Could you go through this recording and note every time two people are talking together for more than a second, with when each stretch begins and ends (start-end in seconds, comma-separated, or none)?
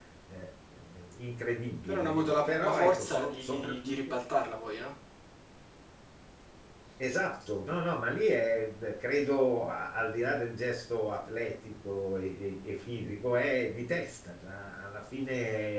1.9-4.1